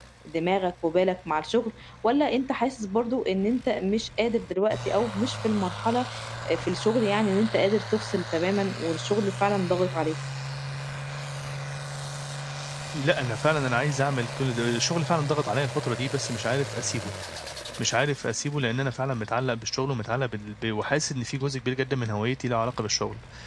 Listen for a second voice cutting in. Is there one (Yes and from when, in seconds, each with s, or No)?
No